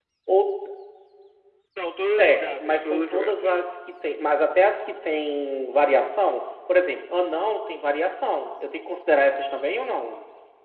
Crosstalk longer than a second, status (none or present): present